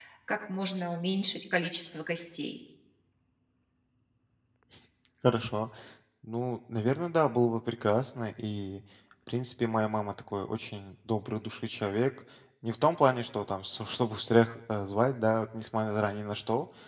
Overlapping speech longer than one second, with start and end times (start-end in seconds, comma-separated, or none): none